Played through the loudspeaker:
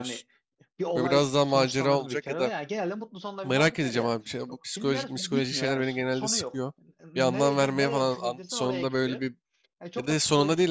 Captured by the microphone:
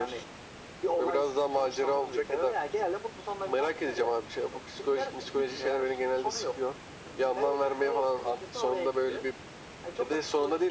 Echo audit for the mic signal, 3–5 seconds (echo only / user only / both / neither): echo only